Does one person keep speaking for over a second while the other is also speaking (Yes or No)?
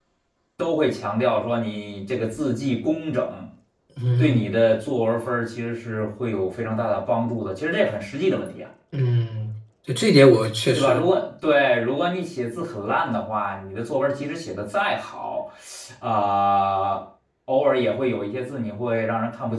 No